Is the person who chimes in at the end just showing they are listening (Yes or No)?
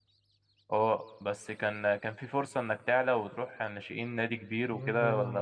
No